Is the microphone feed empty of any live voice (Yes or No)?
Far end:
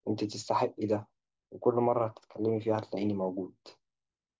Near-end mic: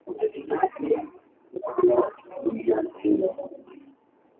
Yes